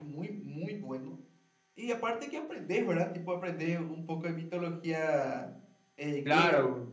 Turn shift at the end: Yes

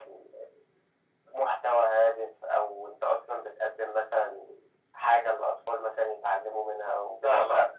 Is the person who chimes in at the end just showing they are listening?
Yes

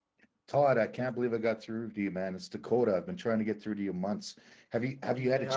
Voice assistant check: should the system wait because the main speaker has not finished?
No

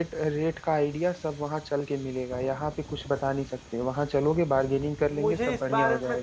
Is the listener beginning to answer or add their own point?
Yes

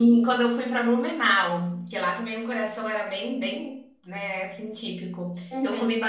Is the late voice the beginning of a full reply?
No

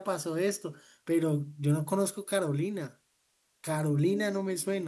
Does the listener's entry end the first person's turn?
Yes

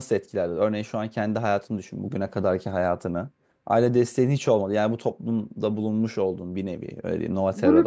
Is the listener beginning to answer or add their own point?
Yes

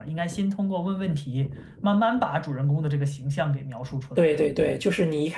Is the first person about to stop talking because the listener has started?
Yes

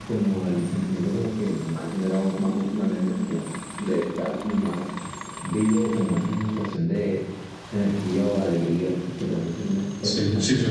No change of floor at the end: No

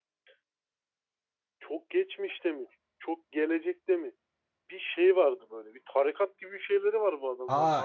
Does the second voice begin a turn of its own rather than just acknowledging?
Yes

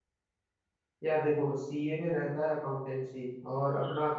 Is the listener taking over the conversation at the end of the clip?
No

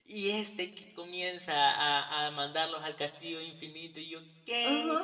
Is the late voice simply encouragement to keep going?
No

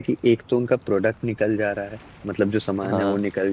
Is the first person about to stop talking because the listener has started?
No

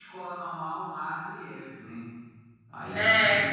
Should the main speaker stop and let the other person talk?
No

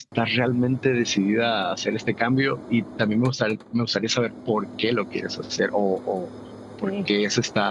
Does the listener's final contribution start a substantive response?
No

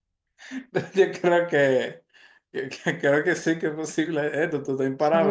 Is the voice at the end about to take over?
Yes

